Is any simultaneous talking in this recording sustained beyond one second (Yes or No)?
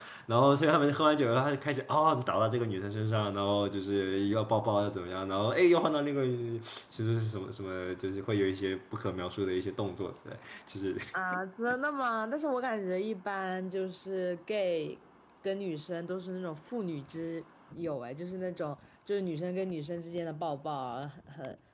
No